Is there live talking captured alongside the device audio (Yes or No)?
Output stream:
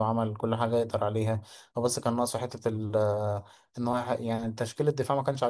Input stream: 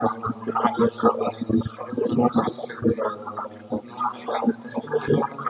No